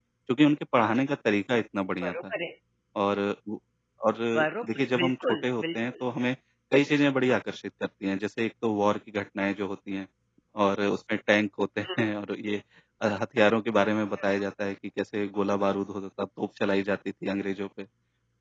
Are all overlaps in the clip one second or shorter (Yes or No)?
No